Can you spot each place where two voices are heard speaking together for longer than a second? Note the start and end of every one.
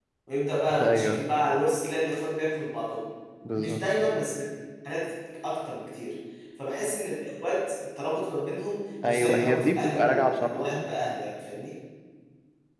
9.0-10.9

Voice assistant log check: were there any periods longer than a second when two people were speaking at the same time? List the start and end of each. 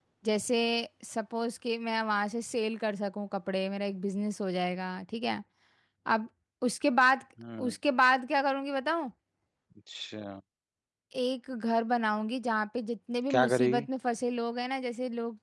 none

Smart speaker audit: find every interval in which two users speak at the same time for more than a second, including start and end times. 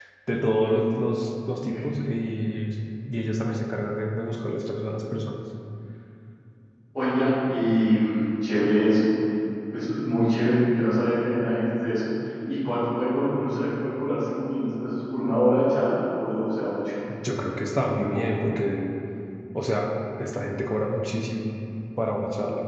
none

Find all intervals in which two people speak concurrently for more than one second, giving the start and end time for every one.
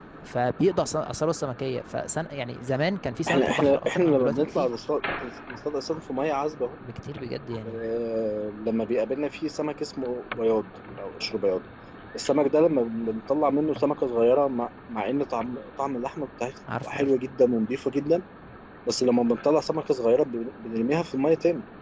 3.3-4.8

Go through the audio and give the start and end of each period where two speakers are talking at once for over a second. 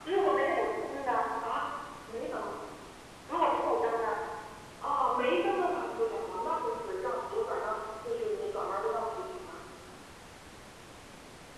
none

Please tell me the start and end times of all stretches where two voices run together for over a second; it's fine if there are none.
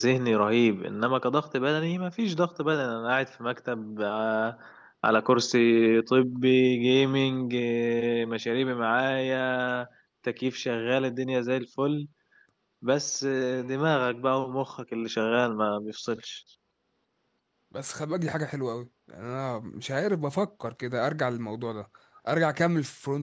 none

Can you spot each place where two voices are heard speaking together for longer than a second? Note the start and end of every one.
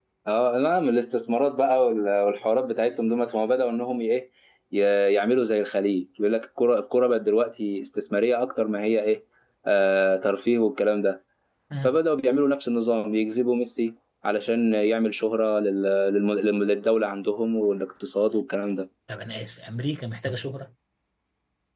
none

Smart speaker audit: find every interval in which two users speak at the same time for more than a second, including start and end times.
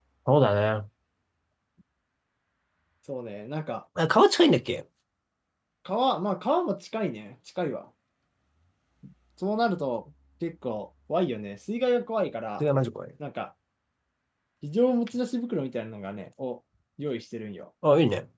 none

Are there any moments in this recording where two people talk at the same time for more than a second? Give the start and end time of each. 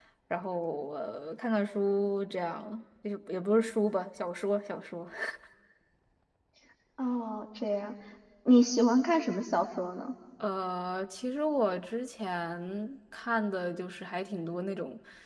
none

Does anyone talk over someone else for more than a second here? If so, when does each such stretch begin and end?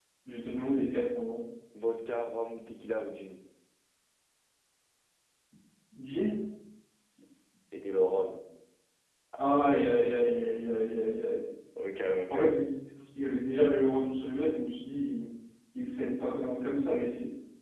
9.4-10.7

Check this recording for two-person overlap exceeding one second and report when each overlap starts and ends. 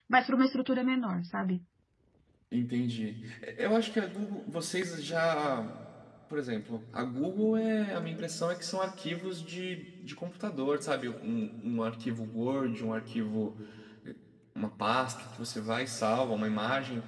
none

